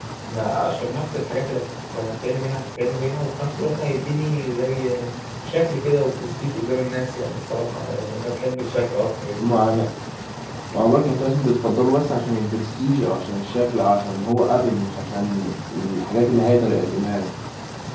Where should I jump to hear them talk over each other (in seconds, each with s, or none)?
none